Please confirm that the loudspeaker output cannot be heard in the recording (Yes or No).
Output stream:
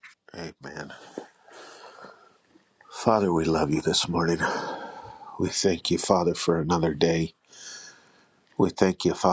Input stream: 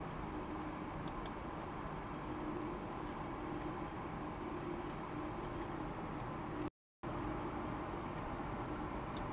Yes